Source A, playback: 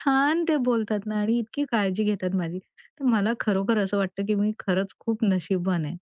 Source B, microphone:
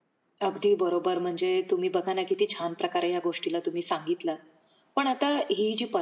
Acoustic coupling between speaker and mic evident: No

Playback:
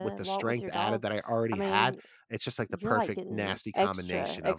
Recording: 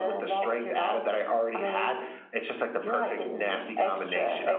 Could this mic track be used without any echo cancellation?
No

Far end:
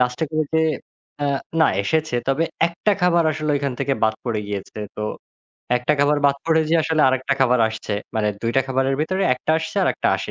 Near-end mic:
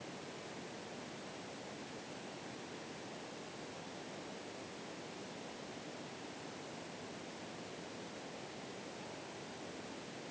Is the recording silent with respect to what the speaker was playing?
Yes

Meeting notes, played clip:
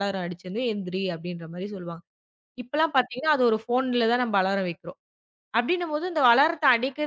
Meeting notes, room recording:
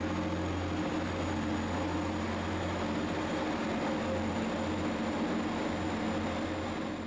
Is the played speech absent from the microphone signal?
Yes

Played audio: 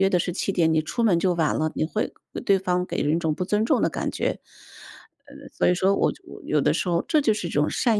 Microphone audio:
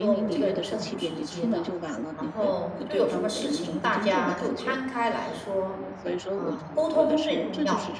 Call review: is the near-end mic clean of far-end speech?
No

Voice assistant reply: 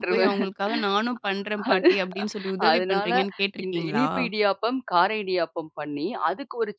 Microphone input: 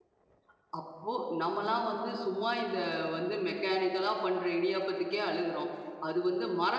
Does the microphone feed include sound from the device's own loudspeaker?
No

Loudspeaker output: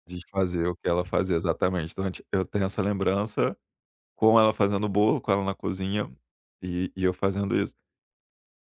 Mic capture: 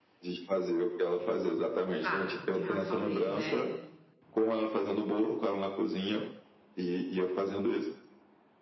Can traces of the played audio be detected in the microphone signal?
Yes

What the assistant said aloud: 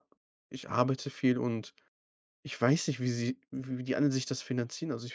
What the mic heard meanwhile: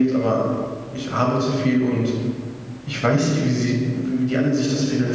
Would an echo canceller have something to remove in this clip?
Yes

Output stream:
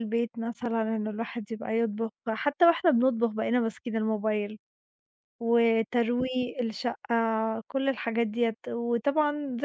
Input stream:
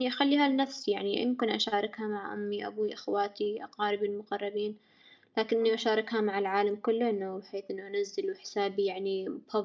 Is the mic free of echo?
Yes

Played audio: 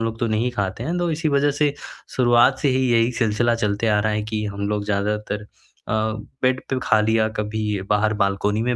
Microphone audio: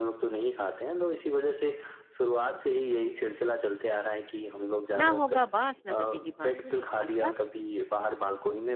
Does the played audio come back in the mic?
Yes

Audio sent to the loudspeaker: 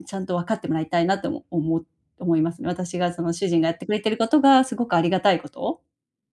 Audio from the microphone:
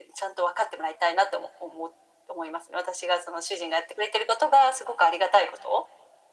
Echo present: Yes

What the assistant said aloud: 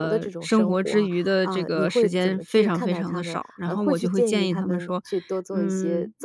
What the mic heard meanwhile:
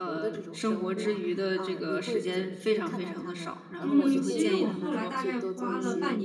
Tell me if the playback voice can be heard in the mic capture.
Yes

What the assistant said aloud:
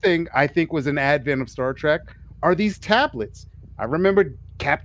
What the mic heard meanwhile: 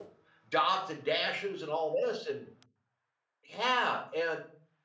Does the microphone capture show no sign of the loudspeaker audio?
Yes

